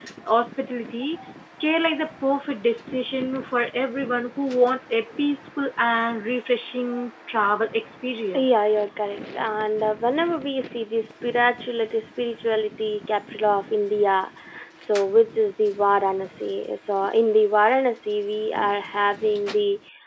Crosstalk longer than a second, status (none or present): none